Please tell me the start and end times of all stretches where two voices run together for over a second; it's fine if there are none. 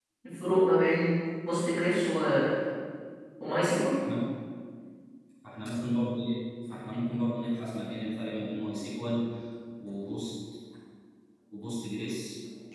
none

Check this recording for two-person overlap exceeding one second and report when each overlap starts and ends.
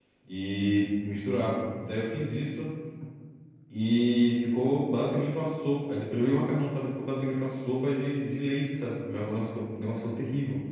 none

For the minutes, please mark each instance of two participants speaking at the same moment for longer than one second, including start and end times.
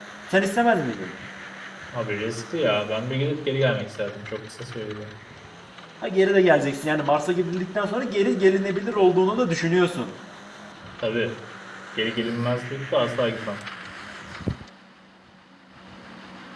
none

